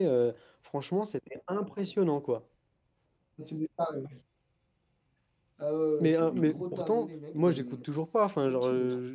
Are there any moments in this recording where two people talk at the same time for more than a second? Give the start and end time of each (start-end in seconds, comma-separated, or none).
6.0-7.8